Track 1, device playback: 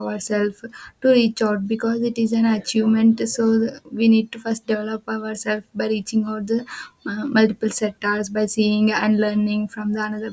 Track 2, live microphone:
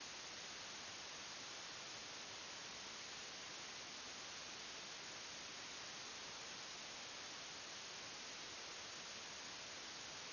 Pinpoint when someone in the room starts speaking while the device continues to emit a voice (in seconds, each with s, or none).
none